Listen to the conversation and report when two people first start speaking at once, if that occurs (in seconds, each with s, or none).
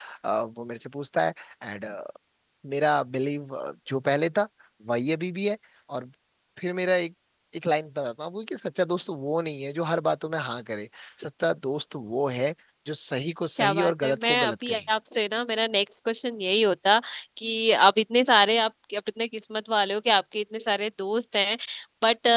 13.6 s